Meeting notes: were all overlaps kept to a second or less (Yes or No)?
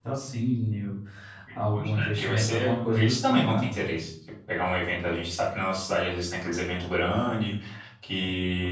No